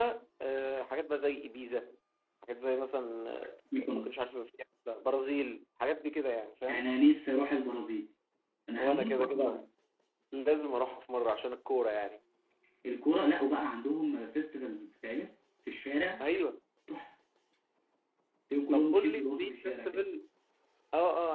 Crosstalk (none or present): present